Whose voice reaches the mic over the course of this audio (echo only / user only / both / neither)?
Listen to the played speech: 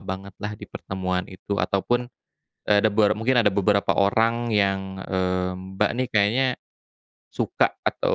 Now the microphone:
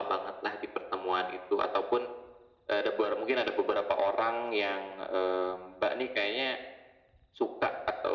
echo only